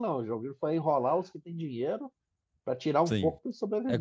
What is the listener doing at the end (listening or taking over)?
taking over